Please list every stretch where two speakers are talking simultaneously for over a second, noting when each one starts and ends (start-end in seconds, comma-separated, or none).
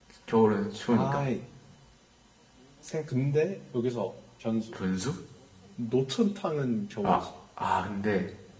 none